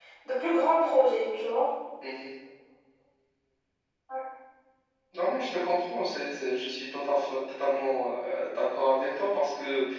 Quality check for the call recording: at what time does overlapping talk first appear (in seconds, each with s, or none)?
none